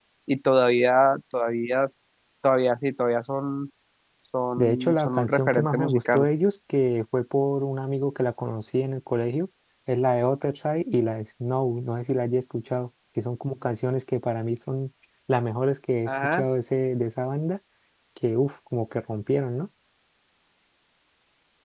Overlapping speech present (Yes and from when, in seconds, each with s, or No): Yes, from 4.6 s